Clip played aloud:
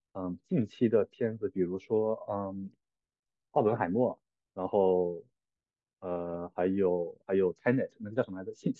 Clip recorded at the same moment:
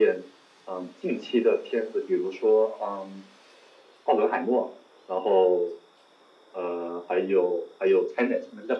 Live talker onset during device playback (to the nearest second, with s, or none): none